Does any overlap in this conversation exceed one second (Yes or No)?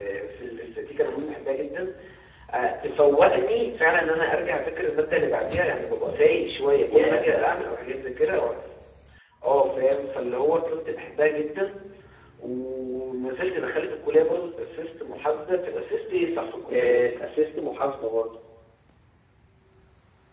No